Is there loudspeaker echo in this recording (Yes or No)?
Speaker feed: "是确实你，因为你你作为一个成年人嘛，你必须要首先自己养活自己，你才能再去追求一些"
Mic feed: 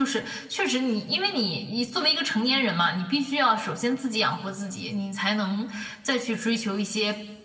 Yes